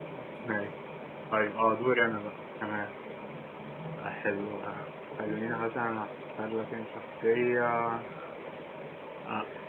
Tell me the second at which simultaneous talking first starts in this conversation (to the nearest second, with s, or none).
none